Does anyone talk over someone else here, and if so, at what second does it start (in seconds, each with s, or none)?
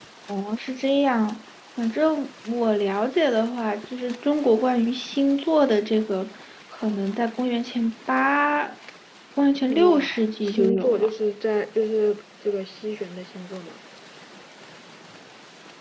9.8 s